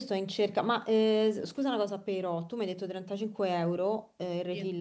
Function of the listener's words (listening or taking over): listening